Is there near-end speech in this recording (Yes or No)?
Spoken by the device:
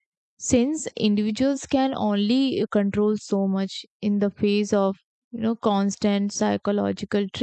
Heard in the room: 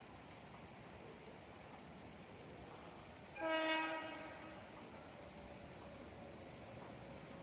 No